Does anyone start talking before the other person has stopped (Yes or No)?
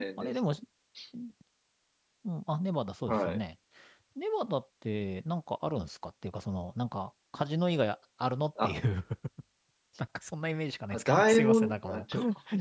Yes